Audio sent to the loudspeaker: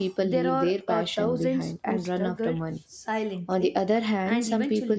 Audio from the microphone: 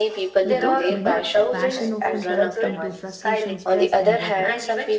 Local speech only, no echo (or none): Without money, passion often turns into frustration, stress, and regret.